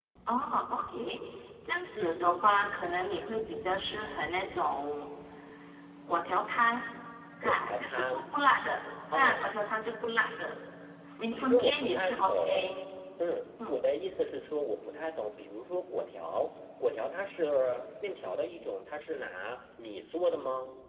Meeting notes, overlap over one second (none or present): present